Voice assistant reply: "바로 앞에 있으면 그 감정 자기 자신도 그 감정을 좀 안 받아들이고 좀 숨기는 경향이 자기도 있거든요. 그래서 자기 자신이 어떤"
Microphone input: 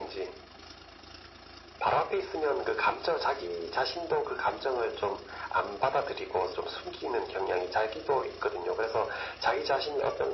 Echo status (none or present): present